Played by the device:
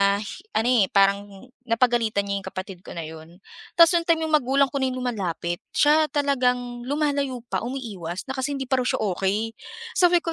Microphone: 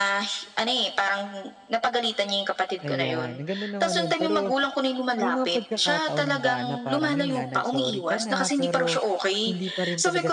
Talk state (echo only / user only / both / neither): both